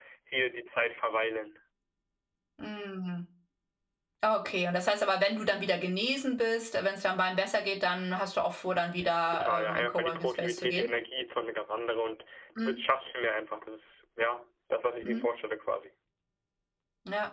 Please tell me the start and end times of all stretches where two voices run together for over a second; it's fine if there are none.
9.3-10.9

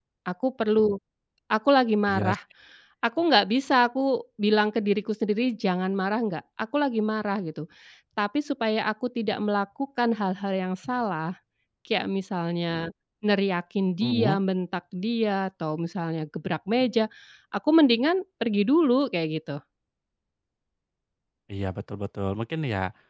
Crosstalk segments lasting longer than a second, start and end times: none

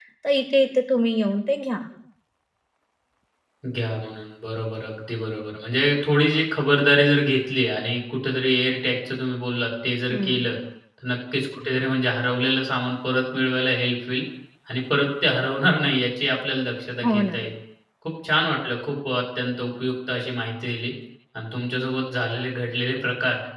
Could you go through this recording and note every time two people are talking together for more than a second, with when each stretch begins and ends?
none

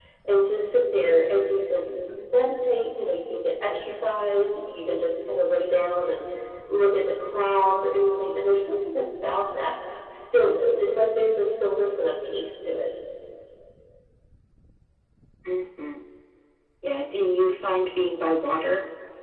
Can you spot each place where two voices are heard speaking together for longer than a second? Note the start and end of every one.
none

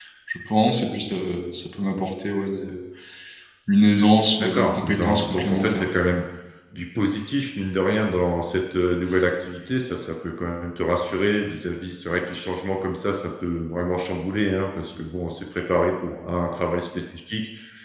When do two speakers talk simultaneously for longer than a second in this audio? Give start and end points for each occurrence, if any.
4.4-5.9

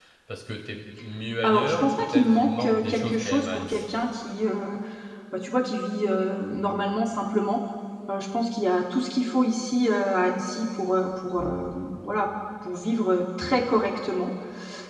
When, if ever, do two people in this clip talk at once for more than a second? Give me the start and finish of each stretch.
1.4-4.0

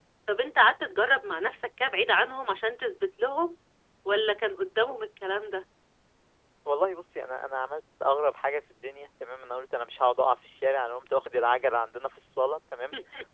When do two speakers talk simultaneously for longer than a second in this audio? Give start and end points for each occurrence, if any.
none

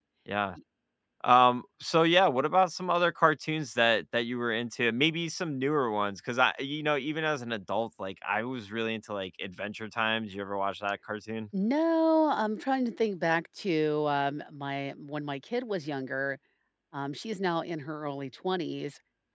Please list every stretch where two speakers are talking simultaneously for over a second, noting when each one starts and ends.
none

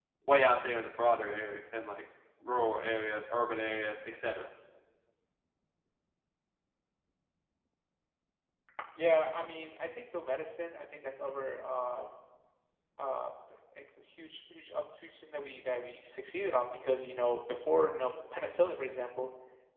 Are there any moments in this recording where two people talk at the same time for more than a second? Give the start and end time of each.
none

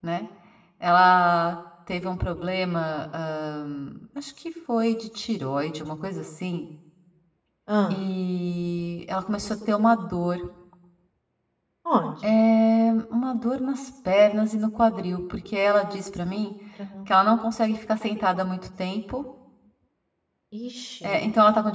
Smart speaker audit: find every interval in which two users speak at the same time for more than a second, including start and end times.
none

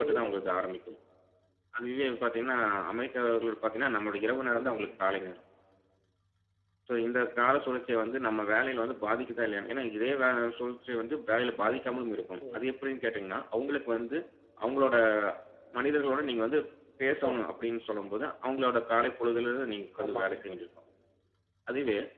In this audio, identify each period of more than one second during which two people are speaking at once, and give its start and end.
none

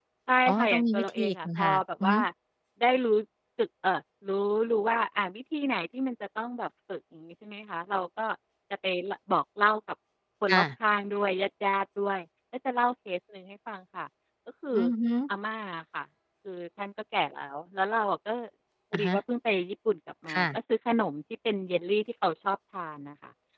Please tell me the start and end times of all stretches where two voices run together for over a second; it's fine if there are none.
0.5-2.2

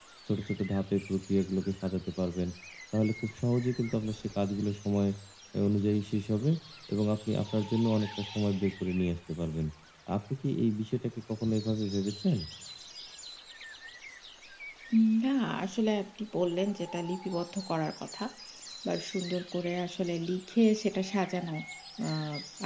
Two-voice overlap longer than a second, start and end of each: none

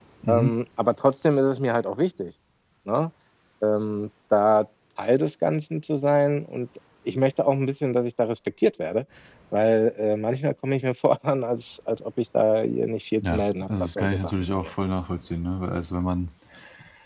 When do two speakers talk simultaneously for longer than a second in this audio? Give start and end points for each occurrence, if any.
13.3-14.7

